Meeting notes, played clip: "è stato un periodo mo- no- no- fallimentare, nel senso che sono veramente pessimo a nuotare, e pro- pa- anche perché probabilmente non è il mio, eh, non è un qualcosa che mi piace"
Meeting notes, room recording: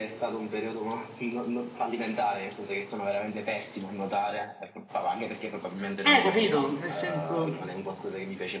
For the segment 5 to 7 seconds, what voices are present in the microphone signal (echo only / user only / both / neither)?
both